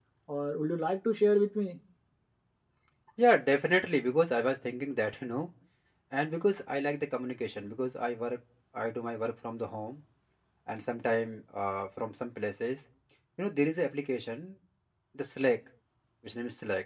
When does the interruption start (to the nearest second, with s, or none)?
none